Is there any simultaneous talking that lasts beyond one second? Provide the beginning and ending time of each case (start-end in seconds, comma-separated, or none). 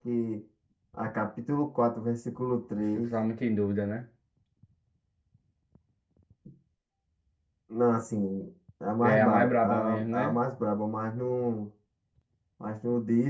9.0-10.3